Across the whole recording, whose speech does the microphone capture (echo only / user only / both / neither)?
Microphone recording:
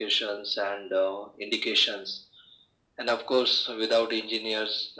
echo only